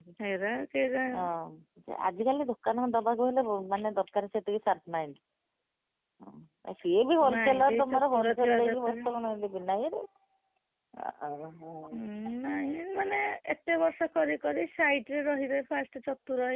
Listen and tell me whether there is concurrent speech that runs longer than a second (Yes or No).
Yes